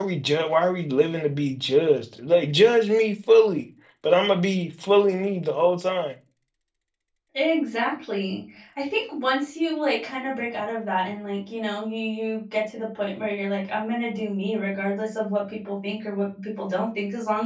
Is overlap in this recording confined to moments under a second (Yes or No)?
Yes